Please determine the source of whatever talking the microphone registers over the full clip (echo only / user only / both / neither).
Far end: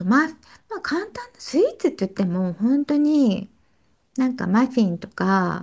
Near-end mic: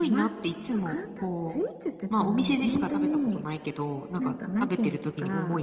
both